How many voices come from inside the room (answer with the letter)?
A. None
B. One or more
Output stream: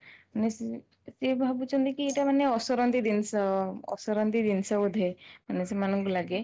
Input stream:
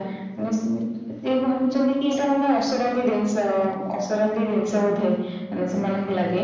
A